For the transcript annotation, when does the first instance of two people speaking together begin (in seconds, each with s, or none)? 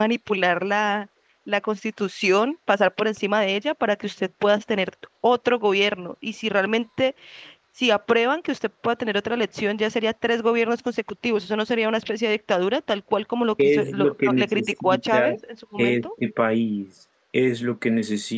13.6 s